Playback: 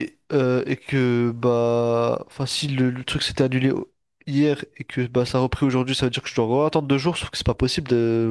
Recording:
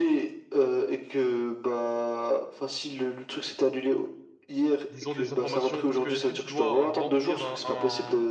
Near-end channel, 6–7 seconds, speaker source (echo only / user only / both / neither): both